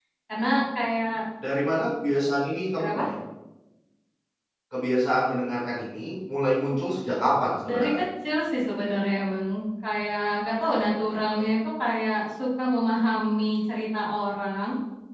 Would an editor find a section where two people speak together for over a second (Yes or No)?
No